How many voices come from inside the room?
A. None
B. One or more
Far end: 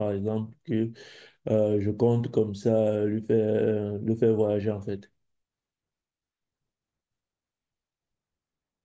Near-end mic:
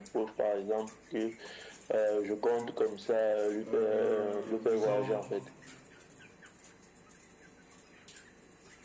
B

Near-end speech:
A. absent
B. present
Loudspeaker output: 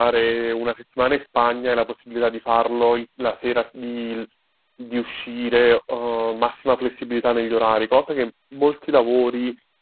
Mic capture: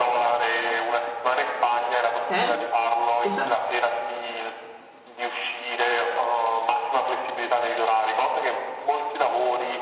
B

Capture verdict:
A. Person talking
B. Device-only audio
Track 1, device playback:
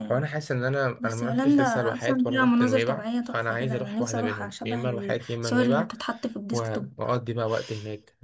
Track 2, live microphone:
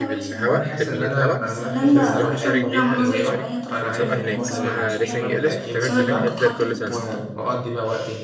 A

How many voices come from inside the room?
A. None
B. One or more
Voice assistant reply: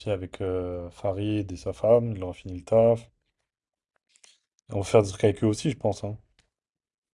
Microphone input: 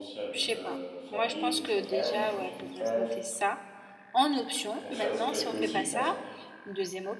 B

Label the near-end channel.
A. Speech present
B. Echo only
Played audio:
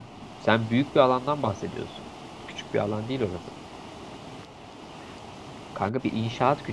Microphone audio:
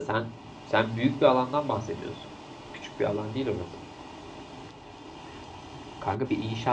B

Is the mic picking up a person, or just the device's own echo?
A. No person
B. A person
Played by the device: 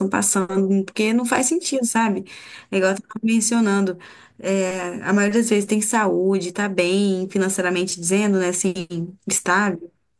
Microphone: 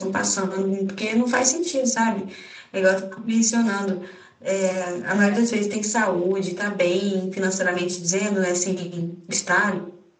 B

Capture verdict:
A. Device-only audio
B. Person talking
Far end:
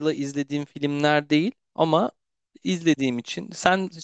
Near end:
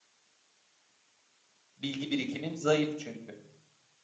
B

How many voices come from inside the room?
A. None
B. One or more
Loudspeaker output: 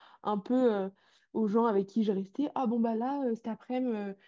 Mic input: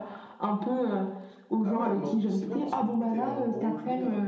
B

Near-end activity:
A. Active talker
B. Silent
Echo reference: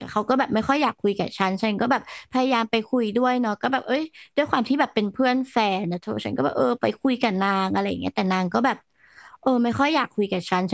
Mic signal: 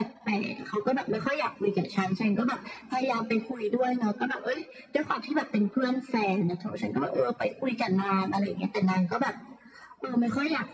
B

